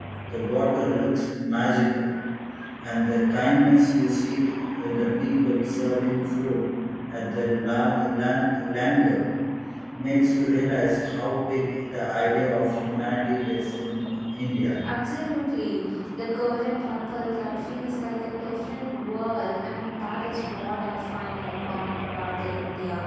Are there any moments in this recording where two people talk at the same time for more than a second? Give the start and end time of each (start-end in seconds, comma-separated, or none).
none